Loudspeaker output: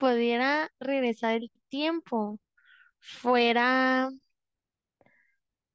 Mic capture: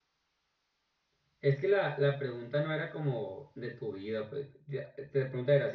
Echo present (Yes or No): No